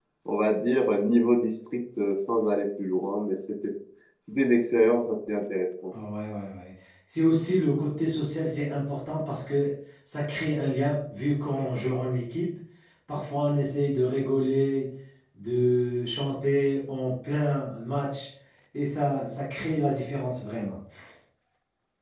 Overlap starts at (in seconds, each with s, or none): none